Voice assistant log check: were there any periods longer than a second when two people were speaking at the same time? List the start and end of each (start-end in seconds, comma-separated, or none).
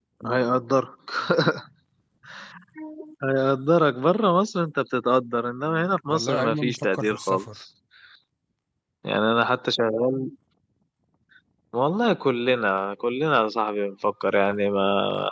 6.1-7.4